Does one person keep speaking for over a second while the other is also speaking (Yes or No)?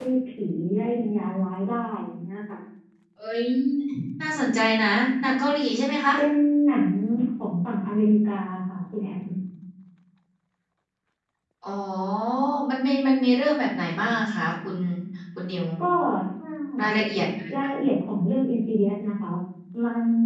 No